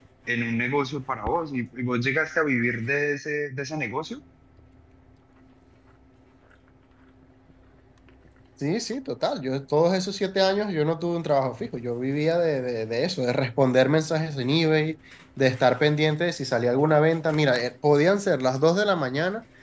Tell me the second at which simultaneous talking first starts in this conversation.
none

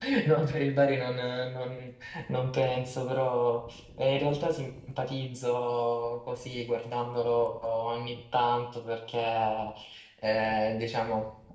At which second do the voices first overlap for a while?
none

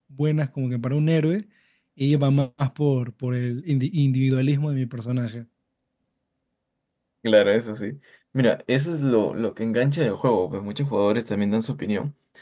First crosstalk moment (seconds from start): none

